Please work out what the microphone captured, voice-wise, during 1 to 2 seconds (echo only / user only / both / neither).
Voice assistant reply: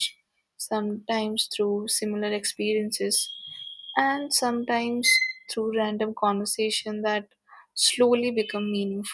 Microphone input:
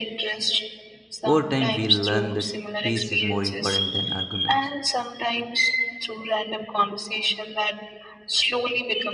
both